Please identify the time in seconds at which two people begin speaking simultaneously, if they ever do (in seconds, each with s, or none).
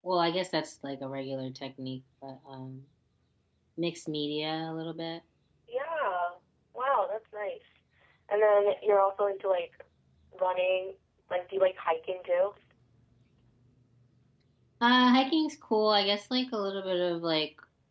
none